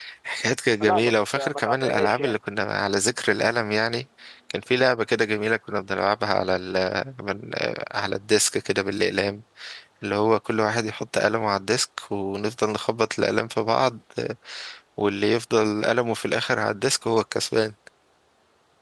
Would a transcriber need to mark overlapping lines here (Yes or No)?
Yes